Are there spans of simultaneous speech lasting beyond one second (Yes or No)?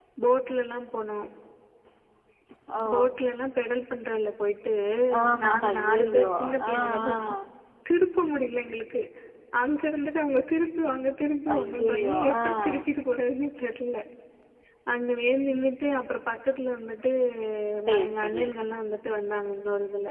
Yes